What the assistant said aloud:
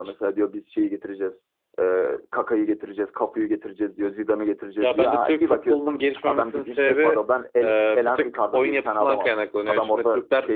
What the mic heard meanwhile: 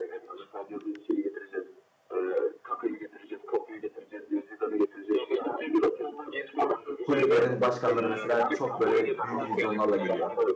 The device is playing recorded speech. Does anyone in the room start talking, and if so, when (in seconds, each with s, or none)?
7.0 s